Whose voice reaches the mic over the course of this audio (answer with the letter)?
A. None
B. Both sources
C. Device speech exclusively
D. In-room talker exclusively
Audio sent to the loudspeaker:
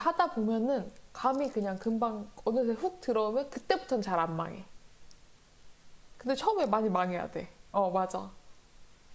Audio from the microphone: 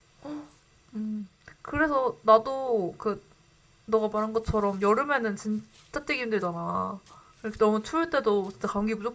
D